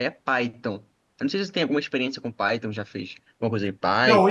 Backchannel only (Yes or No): No